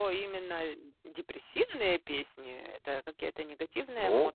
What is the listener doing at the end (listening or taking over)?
taking over